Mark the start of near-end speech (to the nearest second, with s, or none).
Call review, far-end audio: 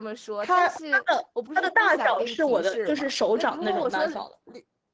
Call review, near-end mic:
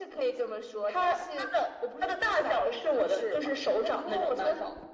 none